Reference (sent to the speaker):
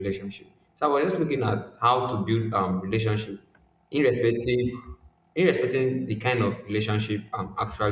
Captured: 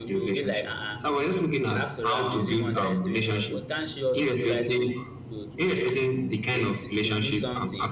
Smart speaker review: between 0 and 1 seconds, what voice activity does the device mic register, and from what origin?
both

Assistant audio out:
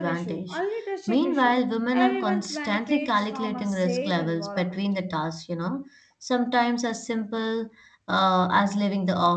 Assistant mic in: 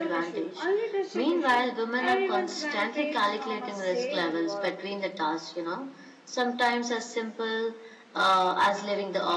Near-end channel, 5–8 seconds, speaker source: echo only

